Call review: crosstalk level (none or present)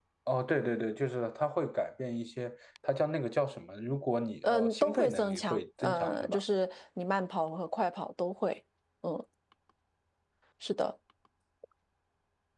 present